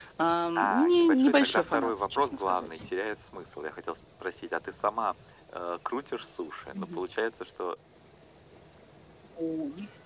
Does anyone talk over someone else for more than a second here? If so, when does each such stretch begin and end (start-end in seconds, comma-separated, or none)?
0.6-2.8